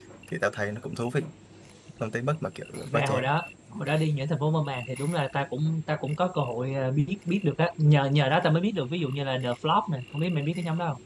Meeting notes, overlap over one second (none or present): none